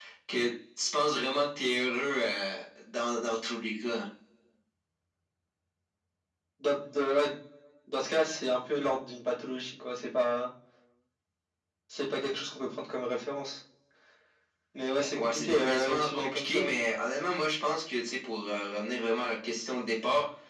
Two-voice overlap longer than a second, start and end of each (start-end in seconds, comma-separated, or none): 15.2-16.7